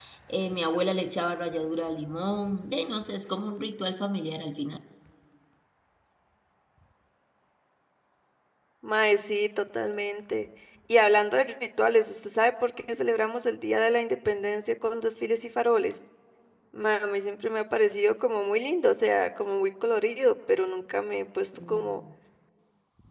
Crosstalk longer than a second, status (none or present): none